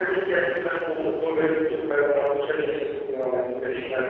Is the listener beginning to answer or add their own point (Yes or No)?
Yes